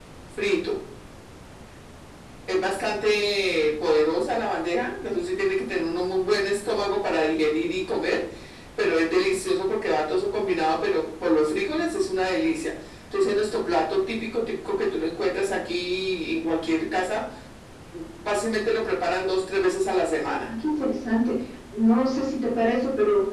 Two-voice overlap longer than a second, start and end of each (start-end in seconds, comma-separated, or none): none